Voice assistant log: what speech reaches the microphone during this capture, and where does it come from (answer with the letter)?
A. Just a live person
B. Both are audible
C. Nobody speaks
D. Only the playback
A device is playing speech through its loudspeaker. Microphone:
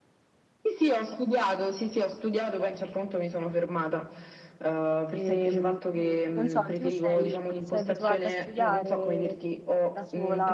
B